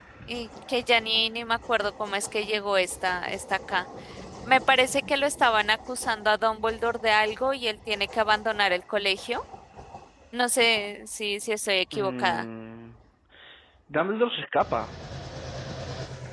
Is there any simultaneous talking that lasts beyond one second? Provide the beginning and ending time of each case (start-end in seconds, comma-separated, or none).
none